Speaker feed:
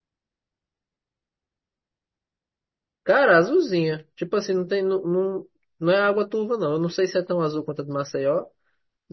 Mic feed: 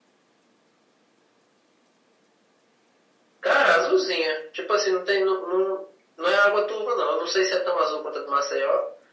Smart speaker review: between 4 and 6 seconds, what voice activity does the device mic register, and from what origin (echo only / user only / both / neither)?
echo only